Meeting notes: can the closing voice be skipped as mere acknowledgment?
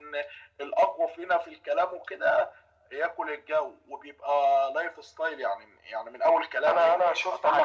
No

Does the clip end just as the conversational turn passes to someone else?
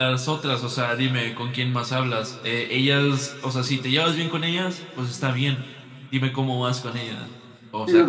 Yes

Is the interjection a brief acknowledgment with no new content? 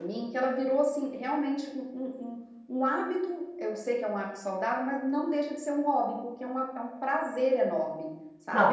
No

